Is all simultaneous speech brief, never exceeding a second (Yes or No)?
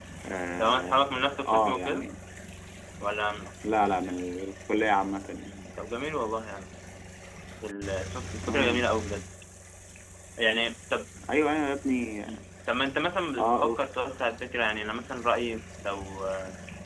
No